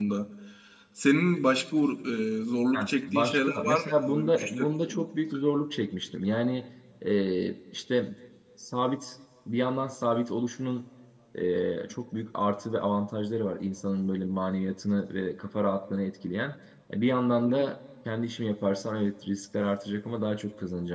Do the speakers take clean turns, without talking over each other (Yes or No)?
No